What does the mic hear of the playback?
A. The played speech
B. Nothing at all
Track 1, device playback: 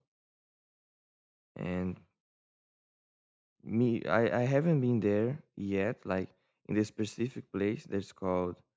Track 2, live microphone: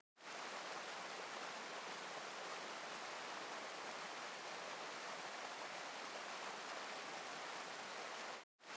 B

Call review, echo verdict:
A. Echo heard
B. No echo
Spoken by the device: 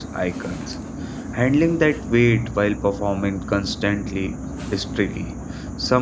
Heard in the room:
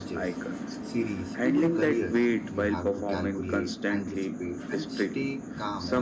A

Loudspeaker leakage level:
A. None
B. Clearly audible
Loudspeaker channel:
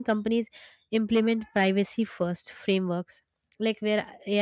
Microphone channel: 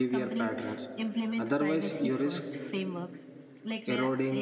B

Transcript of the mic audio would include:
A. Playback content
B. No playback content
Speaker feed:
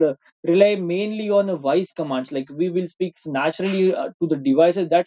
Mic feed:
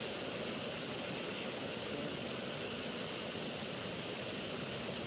B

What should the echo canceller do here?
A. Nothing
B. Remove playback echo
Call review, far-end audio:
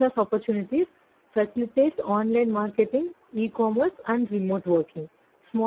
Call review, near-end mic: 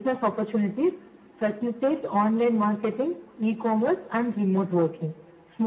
B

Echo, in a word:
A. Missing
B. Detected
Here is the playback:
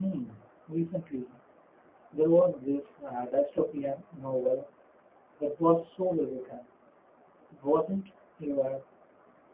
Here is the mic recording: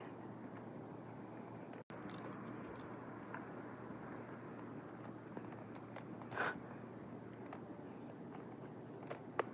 A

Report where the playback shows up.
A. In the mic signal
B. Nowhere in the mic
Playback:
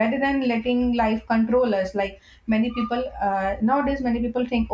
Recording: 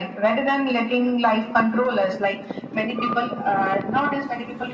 A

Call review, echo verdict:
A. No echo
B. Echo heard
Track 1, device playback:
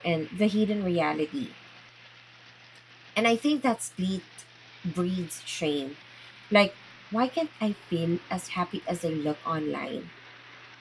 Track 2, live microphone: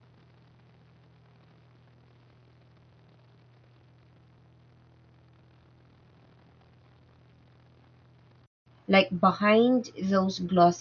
A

